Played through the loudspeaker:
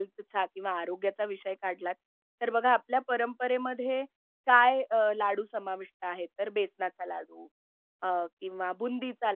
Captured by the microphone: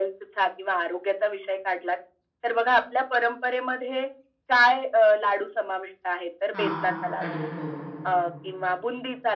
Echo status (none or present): present